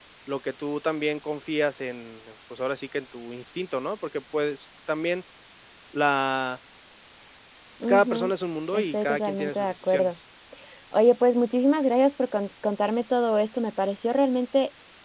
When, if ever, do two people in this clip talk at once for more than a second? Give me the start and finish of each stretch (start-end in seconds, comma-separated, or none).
8.7-10.2